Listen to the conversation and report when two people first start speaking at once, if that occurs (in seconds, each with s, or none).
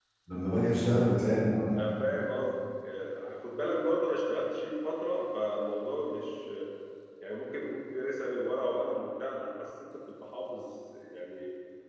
none